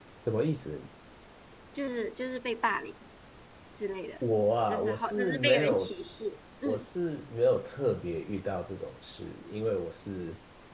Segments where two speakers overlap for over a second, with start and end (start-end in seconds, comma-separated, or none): 4.7-5.9